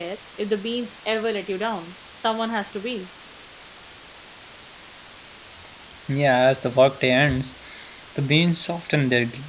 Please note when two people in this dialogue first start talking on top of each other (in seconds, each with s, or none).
none